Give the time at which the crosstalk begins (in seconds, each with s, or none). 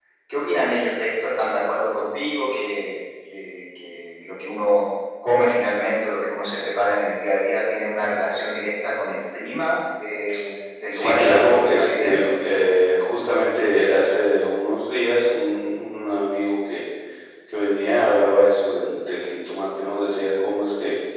10.9 s